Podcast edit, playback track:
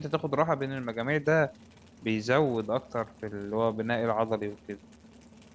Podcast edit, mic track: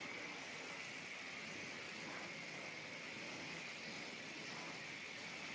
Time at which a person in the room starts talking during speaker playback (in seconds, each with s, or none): none